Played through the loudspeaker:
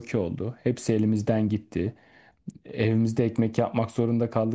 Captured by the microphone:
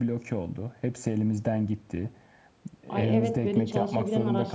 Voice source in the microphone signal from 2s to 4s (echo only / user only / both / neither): both